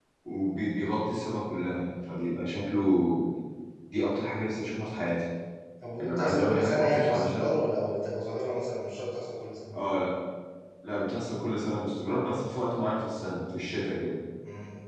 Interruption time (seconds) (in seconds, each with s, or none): 5.9 s